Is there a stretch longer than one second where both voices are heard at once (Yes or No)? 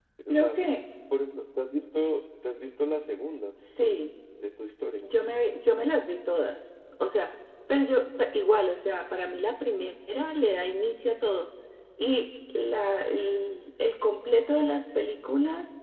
No